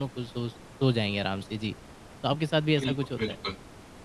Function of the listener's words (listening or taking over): taking over